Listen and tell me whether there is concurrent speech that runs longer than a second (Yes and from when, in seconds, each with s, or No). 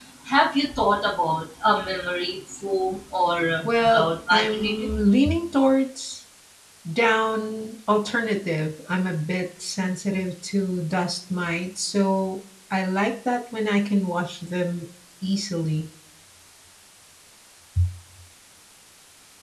Yes, from 3.6 s